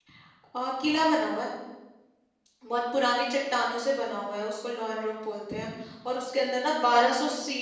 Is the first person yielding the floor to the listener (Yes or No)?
No